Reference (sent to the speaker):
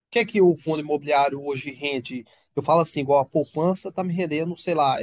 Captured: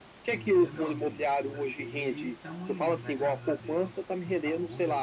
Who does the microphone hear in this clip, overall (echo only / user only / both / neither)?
both